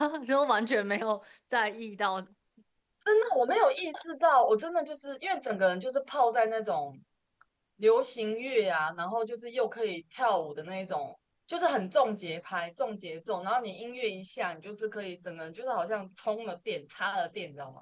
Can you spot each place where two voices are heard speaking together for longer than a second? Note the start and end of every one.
none

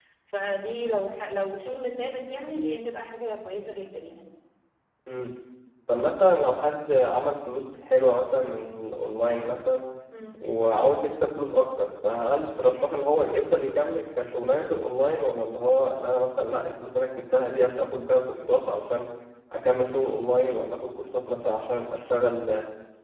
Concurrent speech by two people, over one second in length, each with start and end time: none

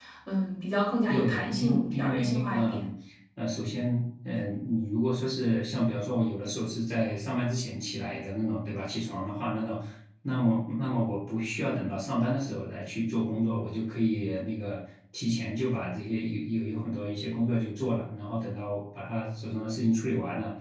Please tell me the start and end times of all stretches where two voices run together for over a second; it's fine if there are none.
1.1-2.8

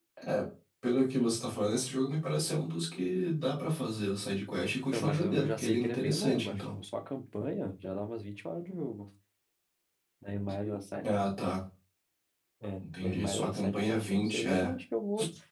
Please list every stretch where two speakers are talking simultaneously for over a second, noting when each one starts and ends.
4.9-6.8, 12.8-14.7

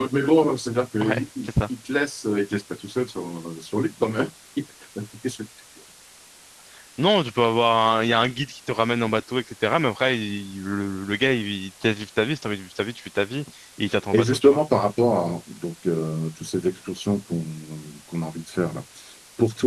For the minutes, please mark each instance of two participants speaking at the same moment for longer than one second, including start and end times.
none

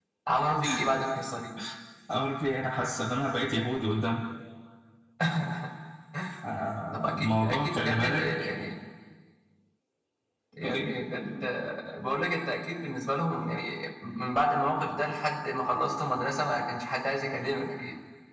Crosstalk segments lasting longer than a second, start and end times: 6.9-8.2

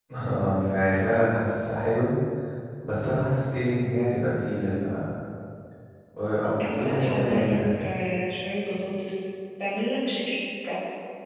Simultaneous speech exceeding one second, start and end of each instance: 6.6-7.8

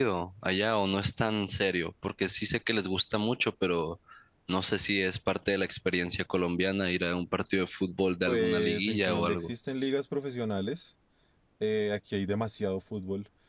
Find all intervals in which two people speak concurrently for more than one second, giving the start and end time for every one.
8.3-9.5

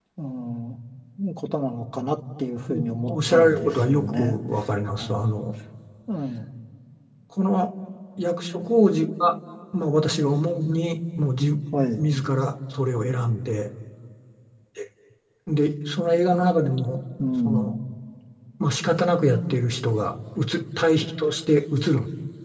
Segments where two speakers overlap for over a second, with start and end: 2.7-4.3

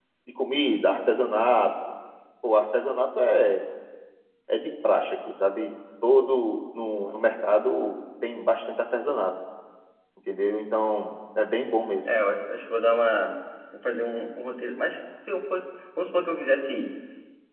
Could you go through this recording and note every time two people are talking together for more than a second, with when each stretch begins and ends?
none

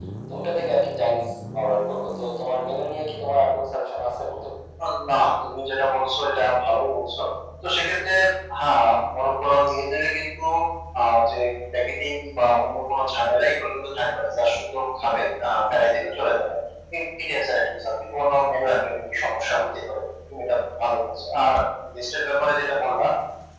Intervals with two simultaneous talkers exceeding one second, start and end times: none

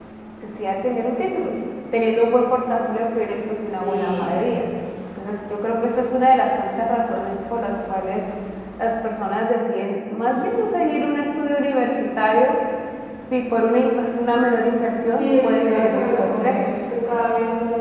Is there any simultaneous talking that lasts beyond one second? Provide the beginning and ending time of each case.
15.2-16.6

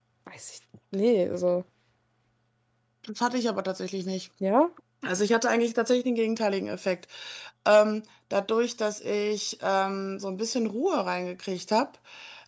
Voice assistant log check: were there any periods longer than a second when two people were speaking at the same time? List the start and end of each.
none

